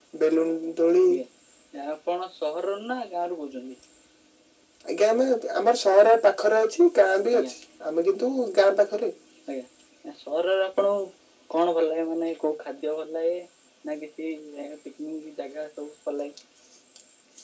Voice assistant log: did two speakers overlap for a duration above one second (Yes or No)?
No